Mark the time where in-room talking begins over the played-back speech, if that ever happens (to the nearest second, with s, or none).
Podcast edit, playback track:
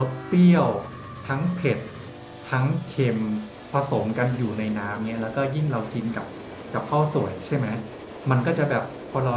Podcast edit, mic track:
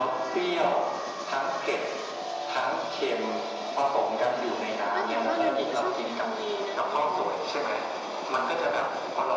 5 s